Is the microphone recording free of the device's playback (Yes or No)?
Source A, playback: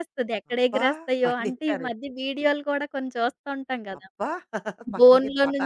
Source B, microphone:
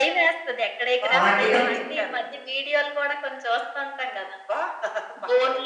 No